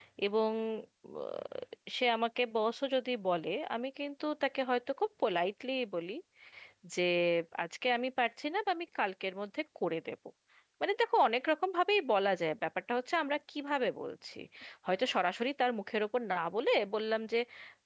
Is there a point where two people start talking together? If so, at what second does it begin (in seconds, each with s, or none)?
none